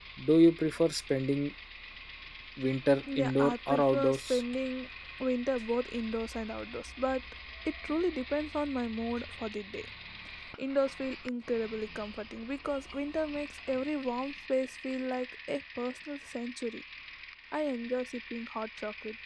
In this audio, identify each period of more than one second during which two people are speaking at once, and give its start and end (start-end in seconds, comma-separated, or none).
3.2-4.4